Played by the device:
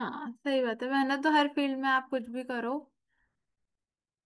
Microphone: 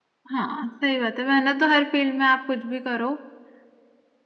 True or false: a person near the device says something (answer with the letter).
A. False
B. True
A